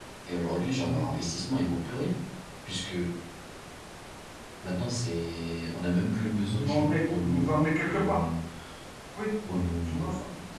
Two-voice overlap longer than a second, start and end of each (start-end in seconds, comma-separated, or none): 6.3-8.2